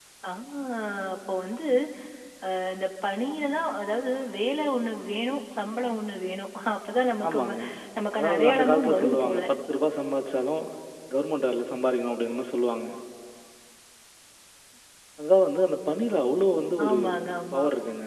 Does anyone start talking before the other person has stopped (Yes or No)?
Yes